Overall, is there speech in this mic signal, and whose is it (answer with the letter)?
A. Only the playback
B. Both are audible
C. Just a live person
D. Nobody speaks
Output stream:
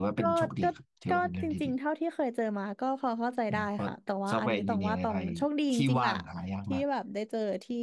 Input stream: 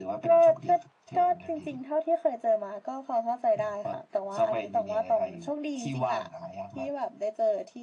A